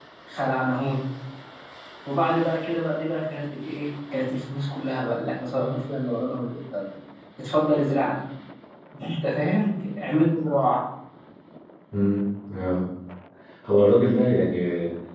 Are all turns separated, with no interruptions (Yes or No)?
Yes